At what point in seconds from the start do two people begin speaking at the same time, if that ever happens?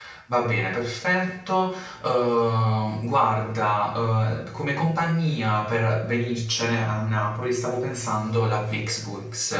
none

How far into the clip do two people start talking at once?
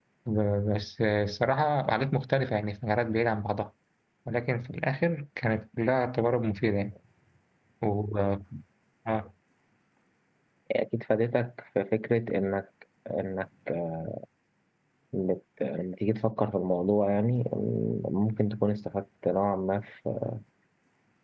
none

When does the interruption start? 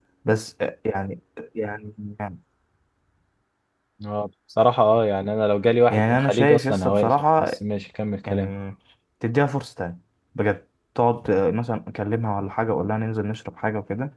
5.9 s

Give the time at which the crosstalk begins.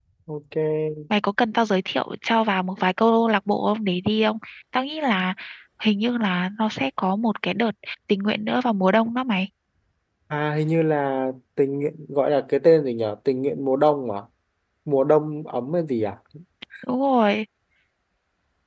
none

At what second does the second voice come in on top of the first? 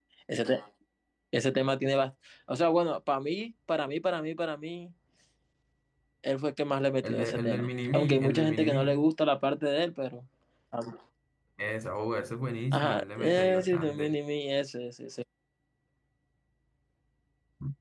7.0 s

